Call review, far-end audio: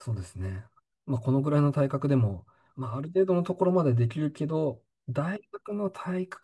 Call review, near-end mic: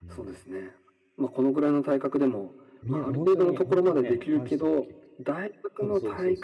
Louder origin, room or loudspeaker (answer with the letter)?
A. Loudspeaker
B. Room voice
A